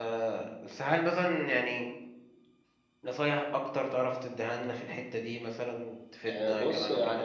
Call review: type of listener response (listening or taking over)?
taking over